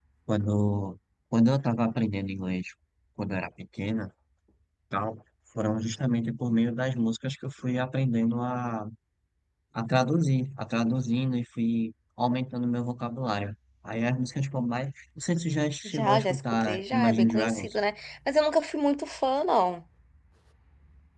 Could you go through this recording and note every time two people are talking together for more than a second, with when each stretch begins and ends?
15.8-17.7

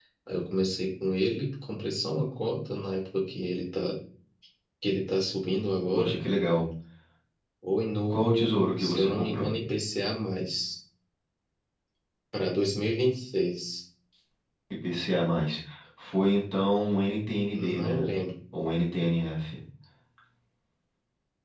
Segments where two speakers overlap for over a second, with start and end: 8.1-9.5

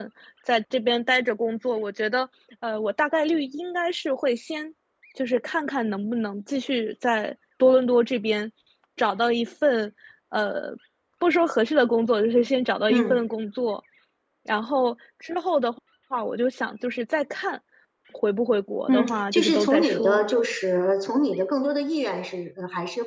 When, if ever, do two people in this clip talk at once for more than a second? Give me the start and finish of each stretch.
18.9-20.2

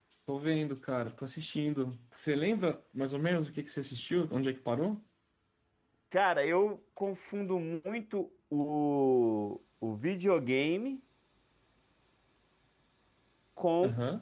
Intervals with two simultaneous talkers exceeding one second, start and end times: none

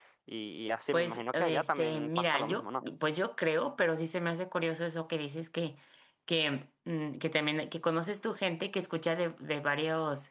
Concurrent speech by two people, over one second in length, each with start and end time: 0.9-2.8

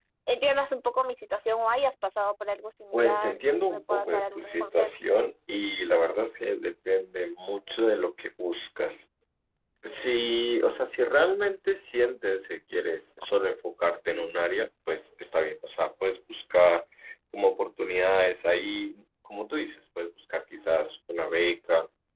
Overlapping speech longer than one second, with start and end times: 2.9-4.9

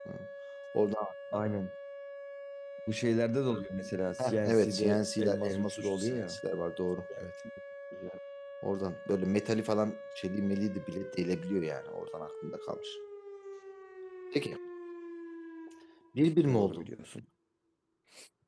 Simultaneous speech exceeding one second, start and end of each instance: 4.2-6.4

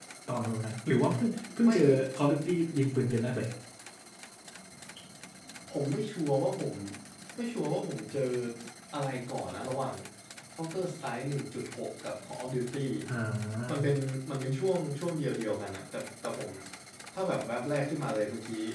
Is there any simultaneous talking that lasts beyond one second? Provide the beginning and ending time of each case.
none

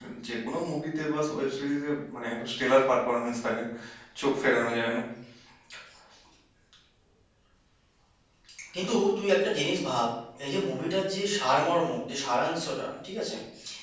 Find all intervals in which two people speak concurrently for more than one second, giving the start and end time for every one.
none

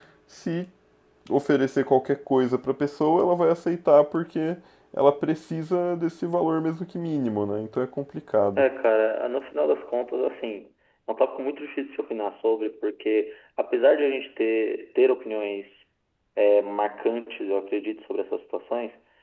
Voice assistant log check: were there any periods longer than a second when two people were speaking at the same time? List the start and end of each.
none

